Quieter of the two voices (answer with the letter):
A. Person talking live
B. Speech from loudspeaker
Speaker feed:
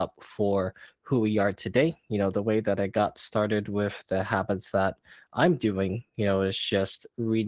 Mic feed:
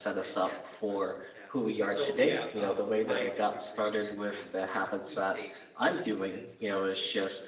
A